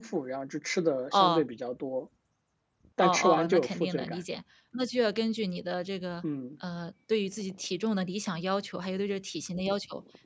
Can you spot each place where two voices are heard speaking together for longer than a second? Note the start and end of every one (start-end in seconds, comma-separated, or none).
3.0-4.2